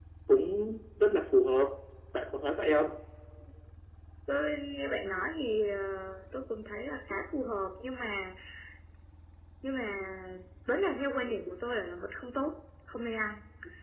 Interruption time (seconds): none

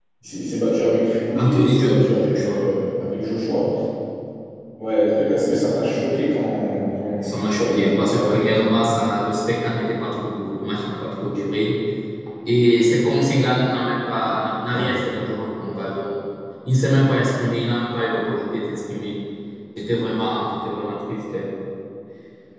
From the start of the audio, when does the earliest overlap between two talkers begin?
1.4 s

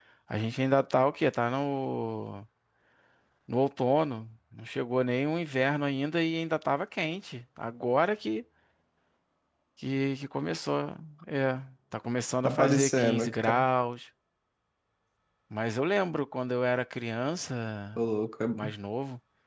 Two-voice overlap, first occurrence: 12.4 s

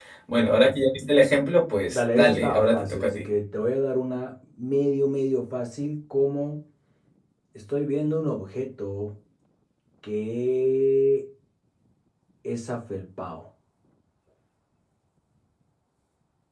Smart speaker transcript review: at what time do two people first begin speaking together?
1.9 s

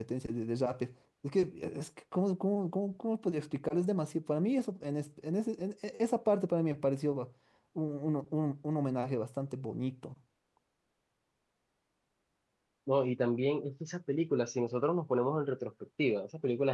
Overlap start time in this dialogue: none

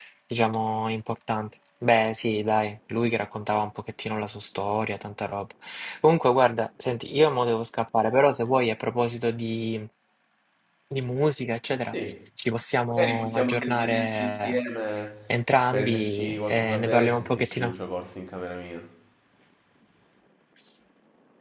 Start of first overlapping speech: 12.9 s

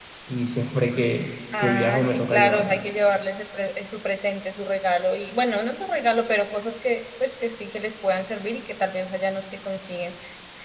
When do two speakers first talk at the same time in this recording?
1.5 s

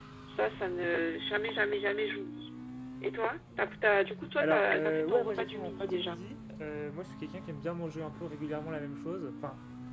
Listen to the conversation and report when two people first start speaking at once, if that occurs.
4.4 s

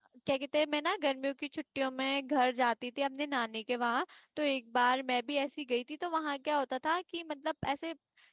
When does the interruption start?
none

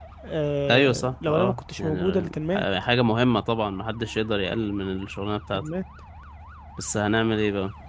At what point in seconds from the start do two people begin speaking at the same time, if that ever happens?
0.7 s

